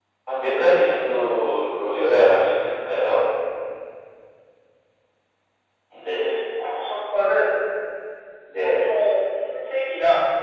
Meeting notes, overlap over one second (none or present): none